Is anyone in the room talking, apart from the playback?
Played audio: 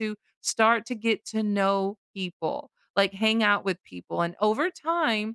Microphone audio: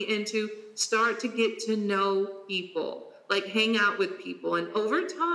No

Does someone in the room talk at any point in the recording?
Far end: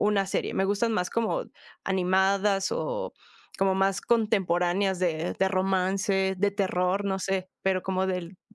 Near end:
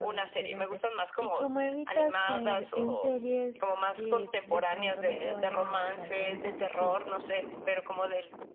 Yes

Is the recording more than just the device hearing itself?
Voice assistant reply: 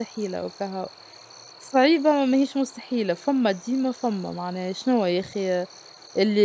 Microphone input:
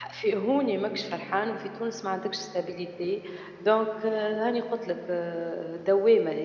Yes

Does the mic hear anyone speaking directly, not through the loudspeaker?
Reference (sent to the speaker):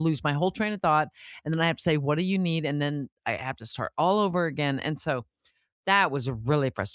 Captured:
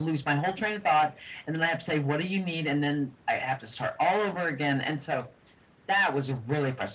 No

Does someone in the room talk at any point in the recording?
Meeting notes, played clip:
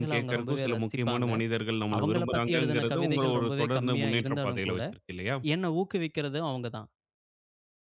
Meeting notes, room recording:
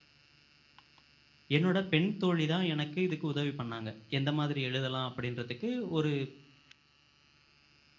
Yes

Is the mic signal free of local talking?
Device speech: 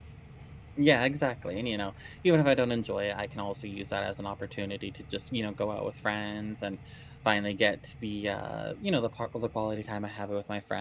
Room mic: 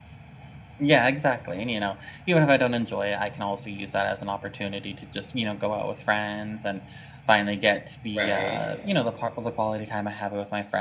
No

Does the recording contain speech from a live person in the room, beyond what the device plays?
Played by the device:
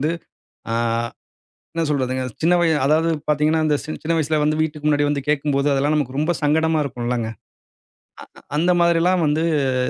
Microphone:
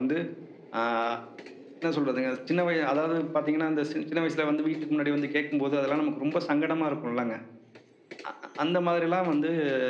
No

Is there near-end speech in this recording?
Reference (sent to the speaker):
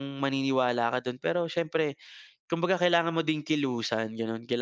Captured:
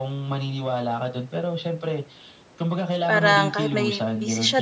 Yes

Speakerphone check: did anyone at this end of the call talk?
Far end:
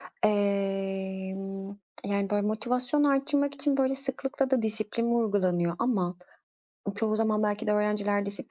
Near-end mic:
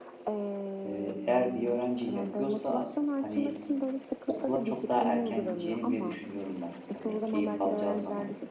Yes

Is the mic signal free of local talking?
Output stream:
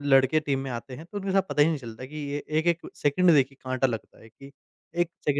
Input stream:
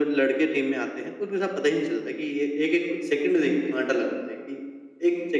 Yes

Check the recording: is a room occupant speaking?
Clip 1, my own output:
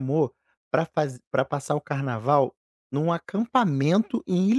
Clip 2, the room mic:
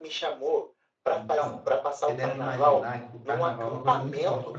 Yes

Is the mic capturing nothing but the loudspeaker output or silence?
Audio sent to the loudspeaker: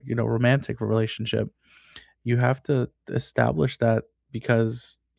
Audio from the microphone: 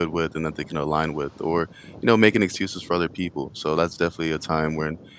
No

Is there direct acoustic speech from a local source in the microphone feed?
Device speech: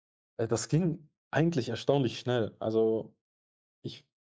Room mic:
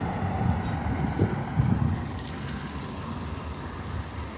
No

